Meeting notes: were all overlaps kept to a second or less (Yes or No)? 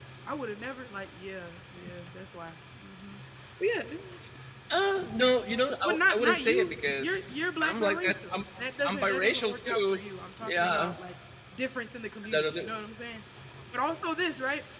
No